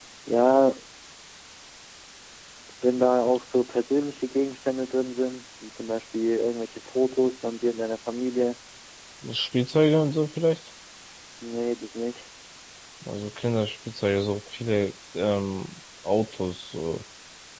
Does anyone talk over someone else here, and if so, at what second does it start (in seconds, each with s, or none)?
none